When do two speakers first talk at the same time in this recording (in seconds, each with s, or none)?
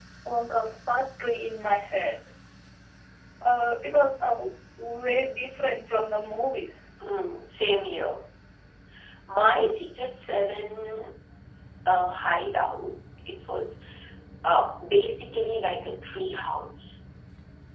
none